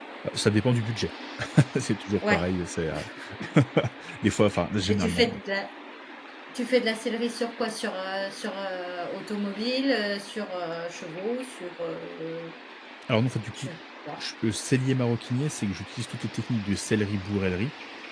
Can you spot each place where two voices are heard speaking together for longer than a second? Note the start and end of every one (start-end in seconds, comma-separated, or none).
none